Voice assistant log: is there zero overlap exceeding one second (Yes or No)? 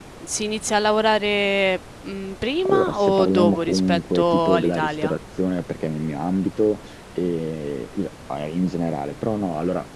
No